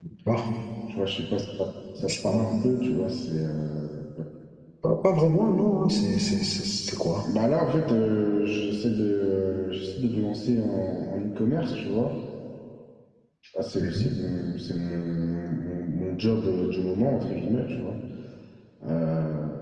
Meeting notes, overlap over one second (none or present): none